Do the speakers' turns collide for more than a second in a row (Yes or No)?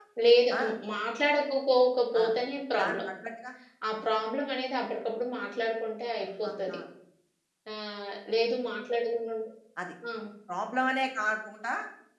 No